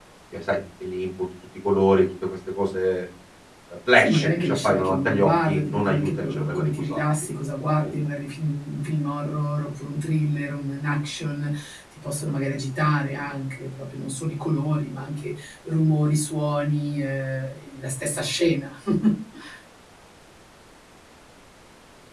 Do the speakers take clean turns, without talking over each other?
No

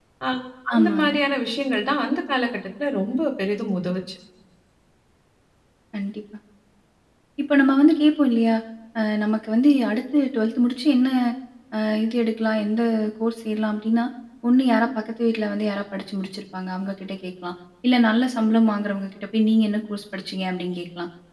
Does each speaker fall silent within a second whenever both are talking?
Yes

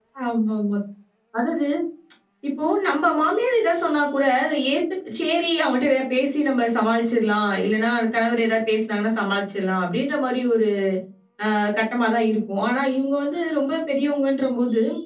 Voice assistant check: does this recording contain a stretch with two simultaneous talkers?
No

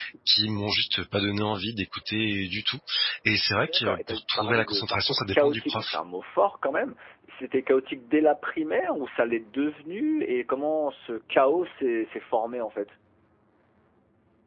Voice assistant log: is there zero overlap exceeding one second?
No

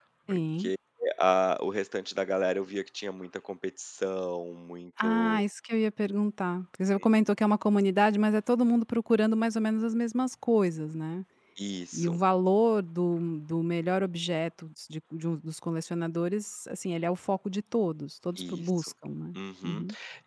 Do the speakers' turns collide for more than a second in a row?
No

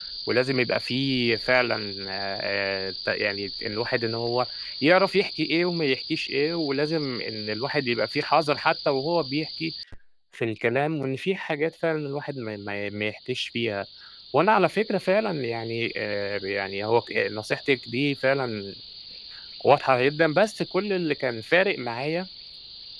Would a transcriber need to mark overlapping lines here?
No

